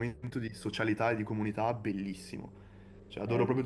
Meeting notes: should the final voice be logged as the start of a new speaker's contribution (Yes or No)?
Yes